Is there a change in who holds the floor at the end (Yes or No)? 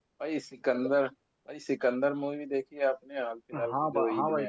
Yes